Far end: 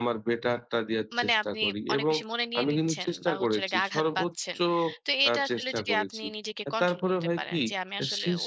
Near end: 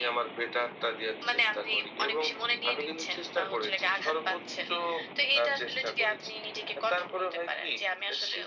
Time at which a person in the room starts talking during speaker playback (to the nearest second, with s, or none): none